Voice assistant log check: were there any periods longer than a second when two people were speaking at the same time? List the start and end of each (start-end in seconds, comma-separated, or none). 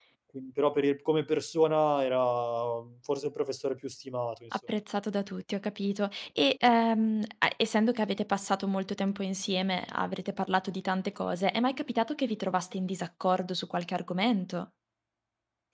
none